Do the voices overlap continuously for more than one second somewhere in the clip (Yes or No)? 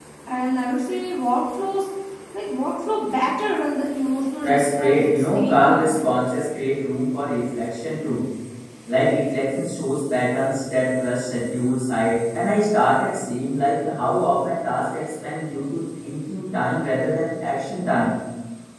Yes